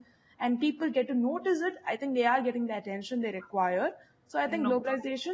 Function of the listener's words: listening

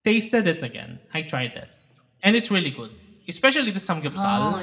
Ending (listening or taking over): taking over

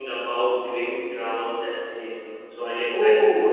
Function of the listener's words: taking over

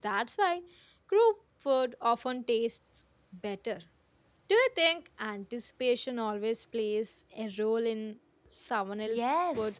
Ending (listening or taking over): taking over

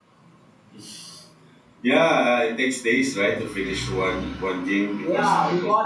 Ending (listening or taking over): taking over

